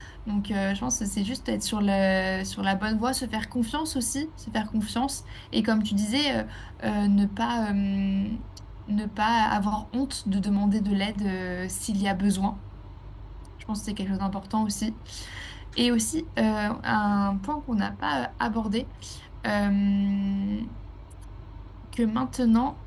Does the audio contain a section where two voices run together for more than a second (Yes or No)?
No